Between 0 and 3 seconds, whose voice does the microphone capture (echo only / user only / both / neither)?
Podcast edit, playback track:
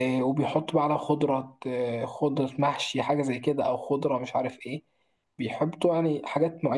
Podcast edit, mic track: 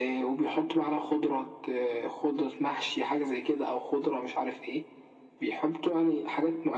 echo only